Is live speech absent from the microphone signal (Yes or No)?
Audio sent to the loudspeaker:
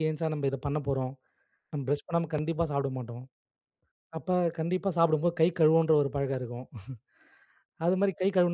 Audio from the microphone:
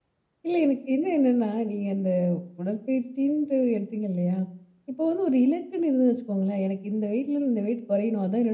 No